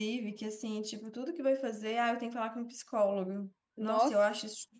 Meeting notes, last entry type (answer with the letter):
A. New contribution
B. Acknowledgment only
B